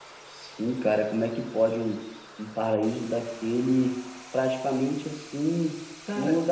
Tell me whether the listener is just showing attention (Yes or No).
Yes